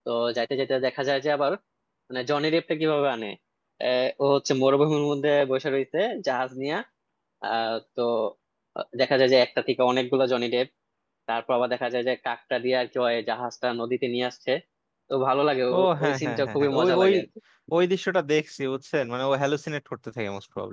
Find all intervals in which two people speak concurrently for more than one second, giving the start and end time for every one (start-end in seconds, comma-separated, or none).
15.7-17.1